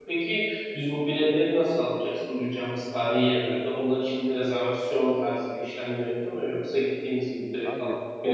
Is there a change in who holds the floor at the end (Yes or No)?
Yes